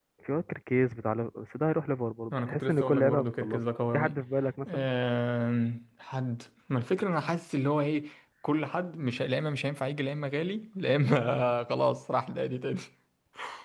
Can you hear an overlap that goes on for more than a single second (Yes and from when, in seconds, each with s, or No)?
Yes, from 2.3 s